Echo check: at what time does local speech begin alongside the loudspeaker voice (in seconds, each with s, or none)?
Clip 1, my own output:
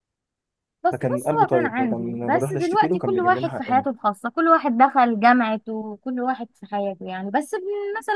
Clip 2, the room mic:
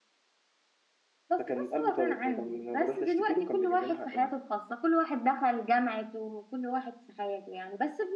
none